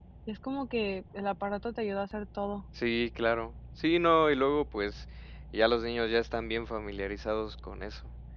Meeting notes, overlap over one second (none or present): none